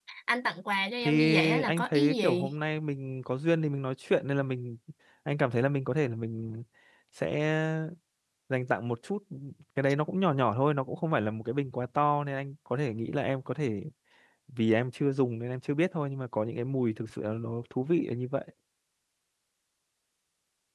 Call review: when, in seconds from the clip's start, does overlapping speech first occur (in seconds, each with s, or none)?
1.0 s